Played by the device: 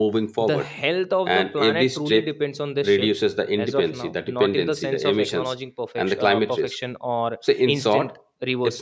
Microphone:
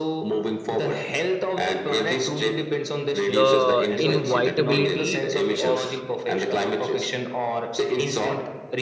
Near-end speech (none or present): present